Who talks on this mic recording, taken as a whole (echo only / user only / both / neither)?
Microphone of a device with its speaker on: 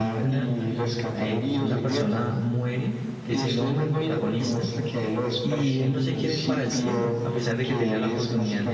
both